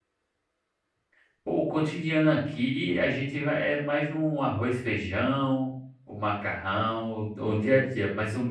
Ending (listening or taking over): listening